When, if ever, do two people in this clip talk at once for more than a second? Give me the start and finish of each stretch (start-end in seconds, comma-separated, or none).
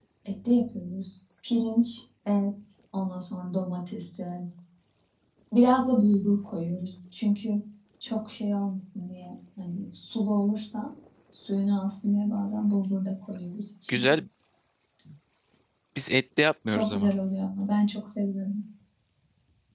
none